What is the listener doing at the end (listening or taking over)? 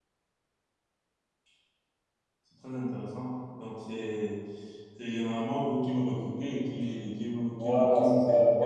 taking over